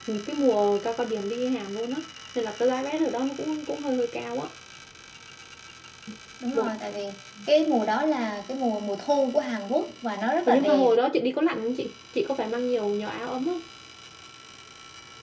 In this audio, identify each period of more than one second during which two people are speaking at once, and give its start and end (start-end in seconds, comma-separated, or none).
none